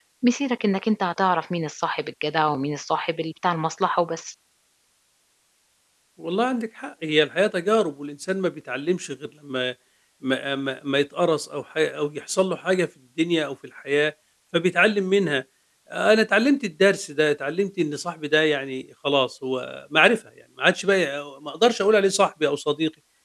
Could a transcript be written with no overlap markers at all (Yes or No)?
Yes